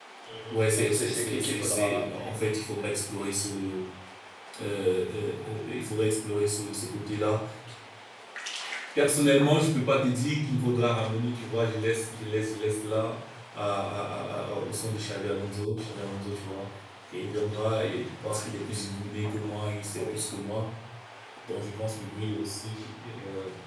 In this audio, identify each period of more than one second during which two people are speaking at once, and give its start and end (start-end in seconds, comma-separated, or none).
0.5-2.3